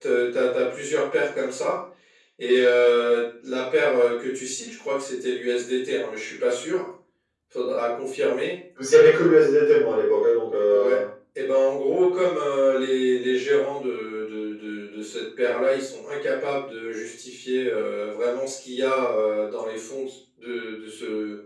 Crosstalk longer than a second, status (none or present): none